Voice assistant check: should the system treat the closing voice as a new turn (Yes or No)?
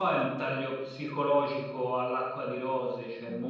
No